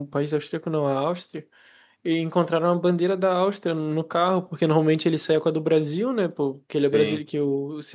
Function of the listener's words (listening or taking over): listening